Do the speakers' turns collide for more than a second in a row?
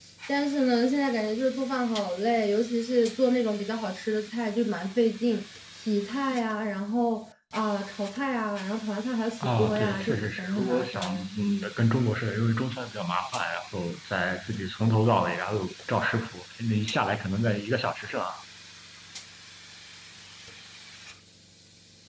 Yes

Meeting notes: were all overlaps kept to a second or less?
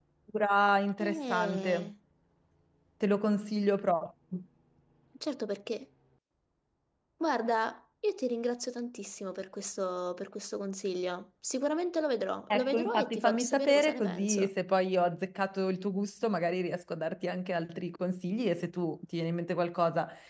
No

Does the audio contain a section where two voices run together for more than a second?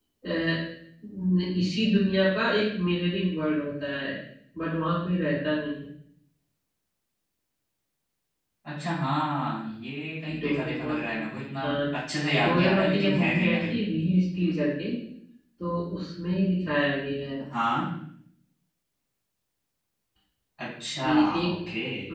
Yes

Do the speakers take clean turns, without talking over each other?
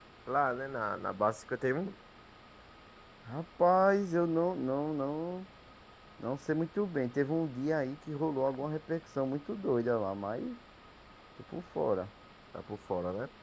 Yes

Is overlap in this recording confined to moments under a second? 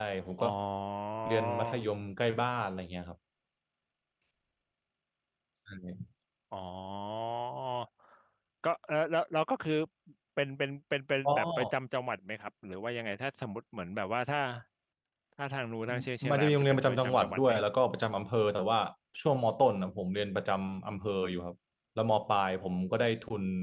No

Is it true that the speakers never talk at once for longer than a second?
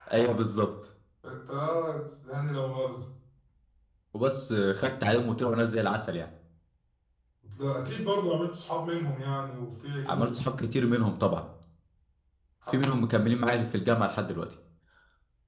Yes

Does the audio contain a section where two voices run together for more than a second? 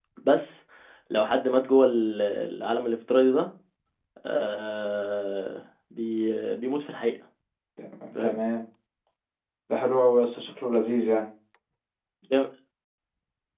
No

